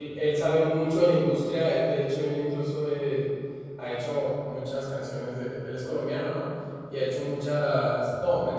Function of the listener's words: listening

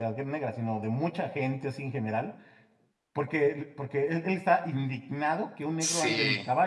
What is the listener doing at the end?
listening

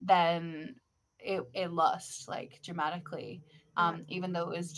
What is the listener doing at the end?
listening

